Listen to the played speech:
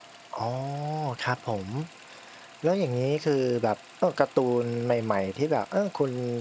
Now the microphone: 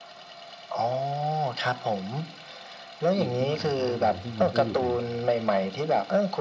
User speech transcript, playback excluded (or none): หยิบขึ้นมาอ่านได้เลย ซึ่งมันก็อยู่ใน